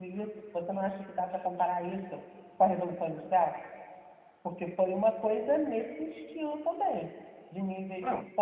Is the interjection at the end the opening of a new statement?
No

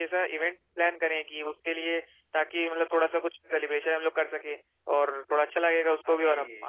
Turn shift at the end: No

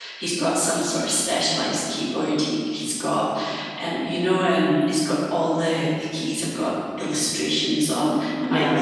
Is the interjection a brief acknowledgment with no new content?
Yes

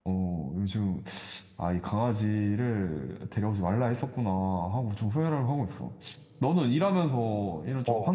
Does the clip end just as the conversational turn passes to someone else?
No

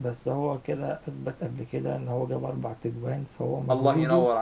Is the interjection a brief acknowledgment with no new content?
No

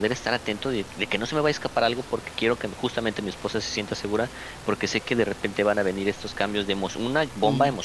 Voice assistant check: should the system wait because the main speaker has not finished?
Yes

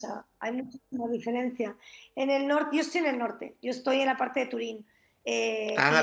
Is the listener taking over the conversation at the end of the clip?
No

